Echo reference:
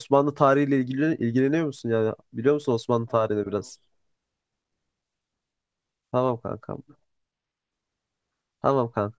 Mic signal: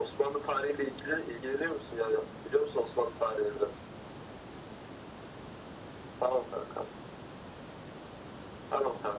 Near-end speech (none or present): none